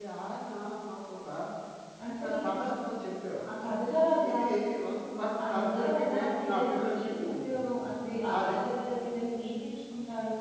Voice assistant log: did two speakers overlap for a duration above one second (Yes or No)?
Yes